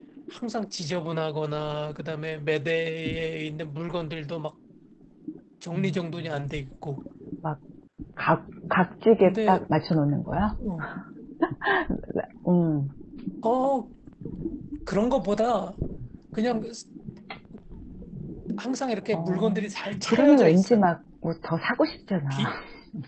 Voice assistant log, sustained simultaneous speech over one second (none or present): present